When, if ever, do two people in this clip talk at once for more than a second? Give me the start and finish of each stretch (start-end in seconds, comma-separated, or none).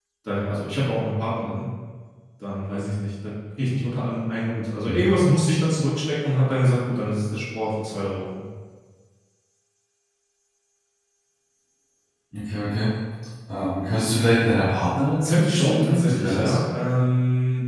15.3-16.6